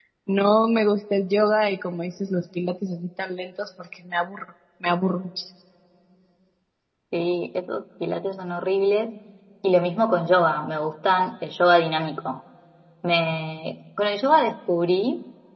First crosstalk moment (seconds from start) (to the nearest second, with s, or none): none